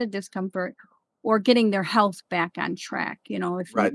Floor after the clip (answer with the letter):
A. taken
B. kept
A